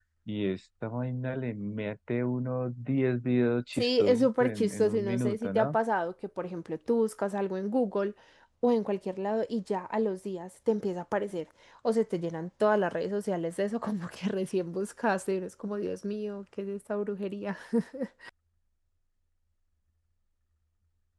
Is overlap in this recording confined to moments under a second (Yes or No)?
No